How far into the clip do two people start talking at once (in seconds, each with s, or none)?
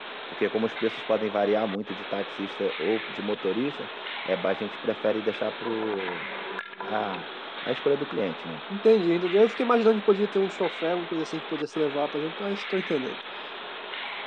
none